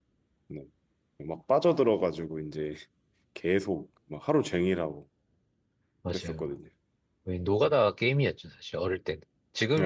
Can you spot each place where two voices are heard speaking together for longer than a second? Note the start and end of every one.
none

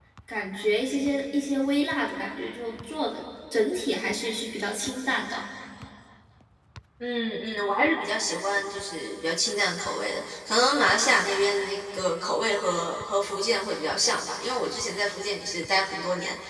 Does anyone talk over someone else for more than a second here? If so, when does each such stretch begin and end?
none

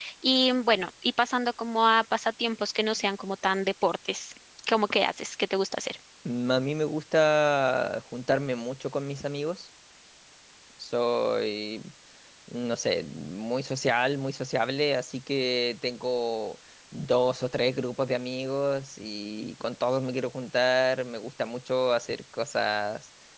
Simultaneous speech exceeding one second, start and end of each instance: none

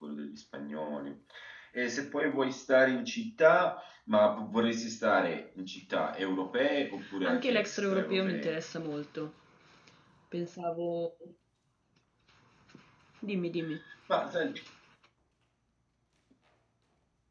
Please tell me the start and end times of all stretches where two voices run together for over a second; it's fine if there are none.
7.2-8.5

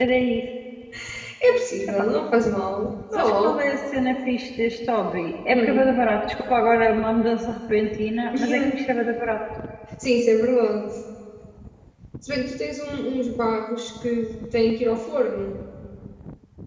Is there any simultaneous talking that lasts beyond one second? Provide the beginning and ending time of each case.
none

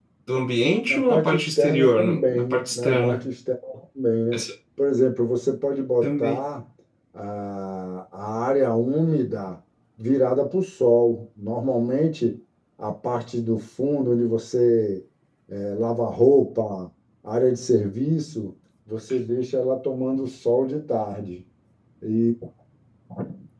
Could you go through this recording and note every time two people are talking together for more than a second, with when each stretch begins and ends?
0.9-3.3

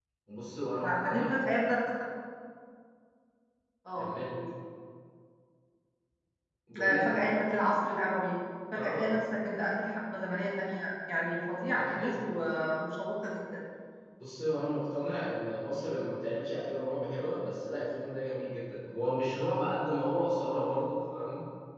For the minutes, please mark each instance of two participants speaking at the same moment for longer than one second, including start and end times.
none

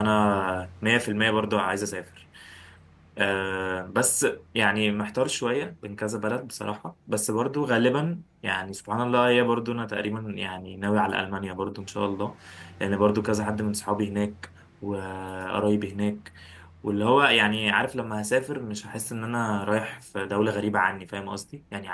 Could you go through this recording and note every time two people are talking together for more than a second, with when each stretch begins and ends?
none

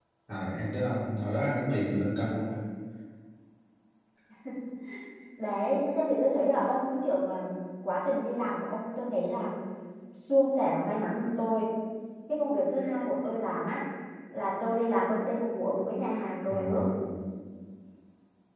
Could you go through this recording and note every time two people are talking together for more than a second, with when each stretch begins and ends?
none

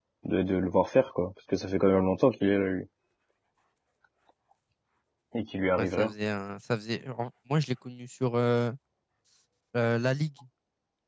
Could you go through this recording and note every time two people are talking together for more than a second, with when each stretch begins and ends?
none

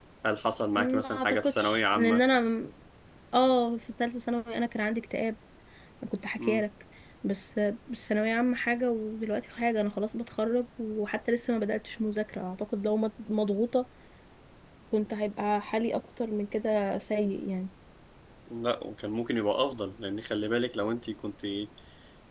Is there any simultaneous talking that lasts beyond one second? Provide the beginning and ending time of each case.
0.8-2.2

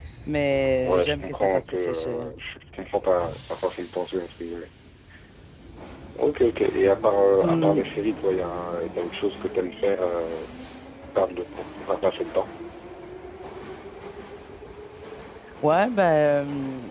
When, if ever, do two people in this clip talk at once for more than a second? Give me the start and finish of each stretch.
0.8-2.3

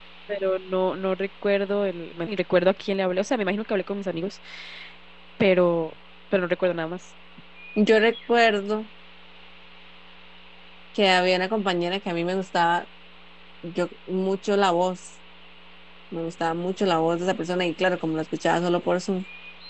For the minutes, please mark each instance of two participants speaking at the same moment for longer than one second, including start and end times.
none

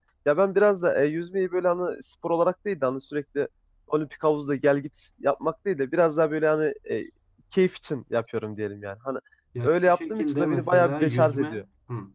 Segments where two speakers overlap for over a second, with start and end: 9.6-11.6

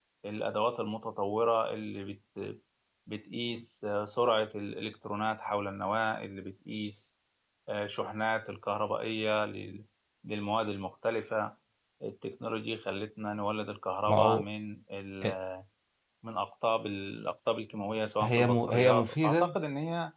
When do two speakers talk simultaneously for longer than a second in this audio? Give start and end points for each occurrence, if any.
18.2-19.6

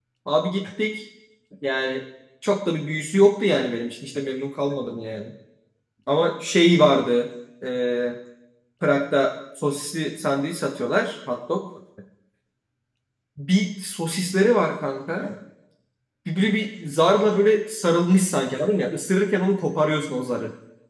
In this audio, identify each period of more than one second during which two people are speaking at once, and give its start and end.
none

